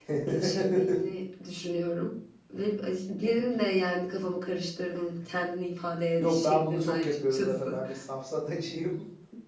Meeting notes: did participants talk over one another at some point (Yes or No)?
Yes